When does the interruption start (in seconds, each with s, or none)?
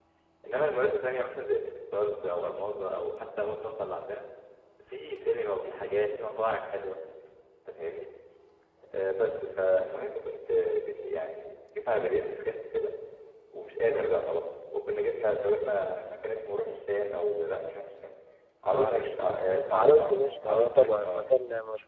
18.7 s